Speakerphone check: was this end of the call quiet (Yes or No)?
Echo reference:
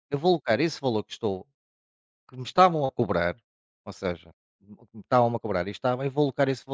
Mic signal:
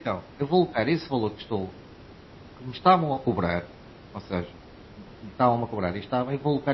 Yes